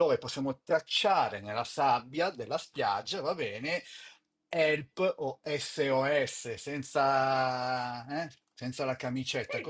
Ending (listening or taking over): taking over